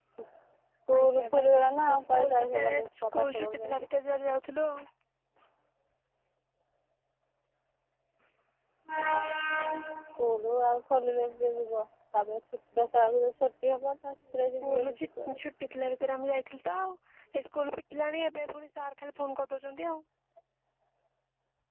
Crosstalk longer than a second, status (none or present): present